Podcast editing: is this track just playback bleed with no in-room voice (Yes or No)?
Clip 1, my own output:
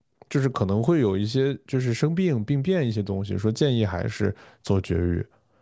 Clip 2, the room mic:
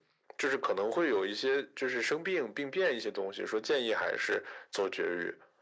Yes